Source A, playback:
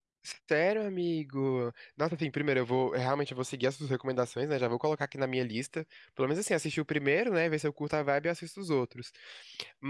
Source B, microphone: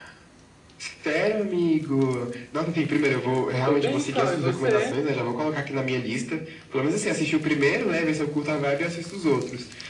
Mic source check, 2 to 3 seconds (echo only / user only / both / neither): echo only